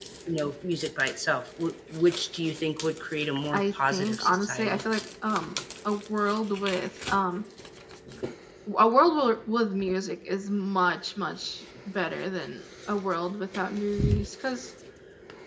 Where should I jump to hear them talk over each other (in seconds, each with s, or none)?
3.5 s